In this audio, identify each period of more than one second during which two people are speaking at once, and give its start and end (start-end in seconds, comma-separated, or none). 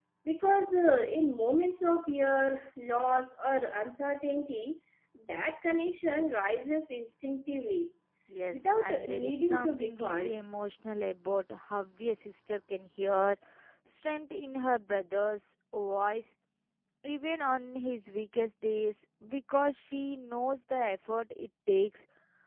8.5-10.3